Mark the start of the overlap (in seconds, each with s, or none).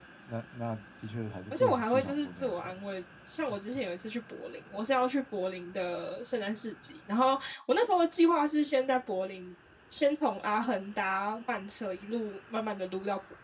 1.5 s